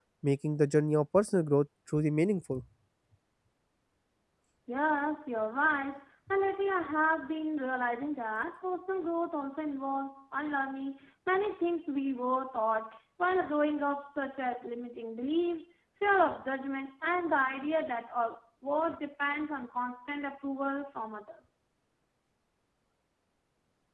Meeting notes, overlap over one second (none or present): none